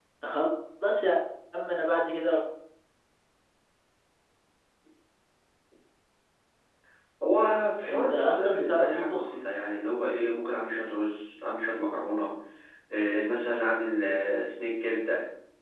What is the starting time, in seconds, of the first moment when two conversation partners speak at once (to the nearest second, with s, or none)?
8 s